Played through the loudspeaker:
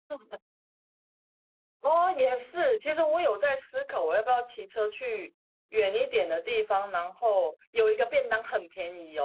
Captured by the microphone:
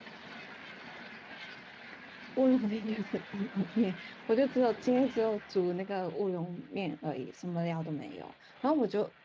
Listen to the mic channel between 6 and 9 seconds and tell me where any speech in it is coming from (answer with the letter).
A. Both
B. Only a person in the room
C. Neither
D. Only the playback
B